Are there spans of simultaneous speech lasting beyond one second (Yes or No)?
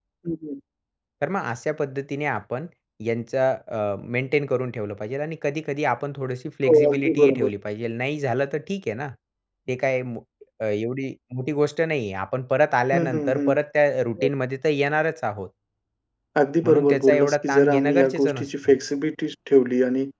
Yes